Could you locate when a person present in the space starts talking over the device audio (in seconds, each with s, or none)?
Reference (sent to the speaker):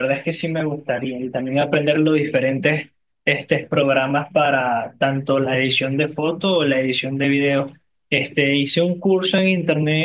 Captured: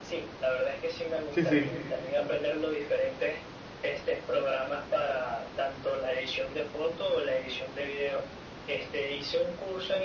1.3 s